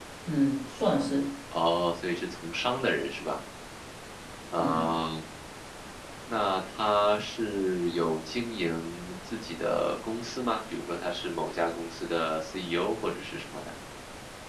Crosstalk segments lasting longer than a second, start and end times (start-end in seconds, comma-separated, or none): none